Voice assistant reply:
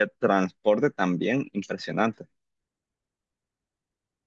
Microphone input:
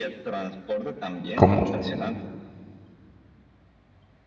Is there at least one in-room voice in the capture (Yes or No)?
Yes